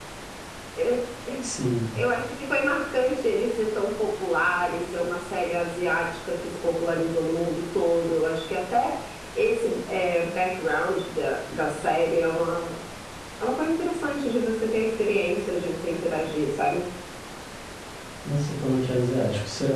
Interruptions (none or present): none